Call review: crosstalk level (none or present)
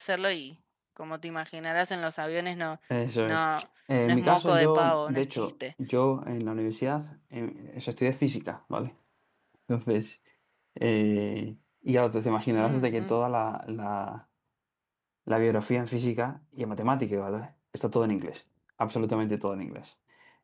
present